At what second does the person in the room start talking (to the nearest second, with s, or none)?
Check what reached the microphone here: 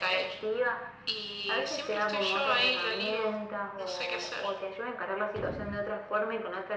none